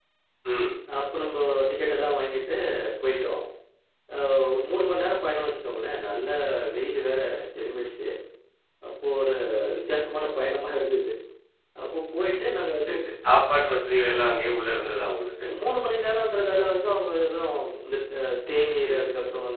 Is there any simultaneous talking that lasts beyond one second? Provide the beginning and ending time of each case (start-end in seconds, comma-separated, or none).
none